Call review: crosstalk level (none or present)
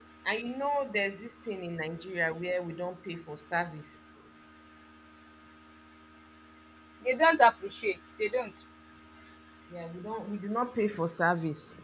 none